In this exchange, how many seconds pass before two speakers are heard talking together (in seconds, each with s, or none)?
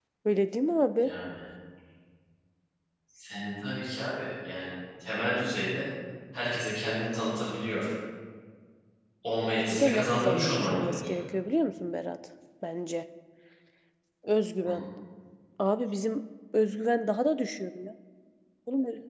9.7 s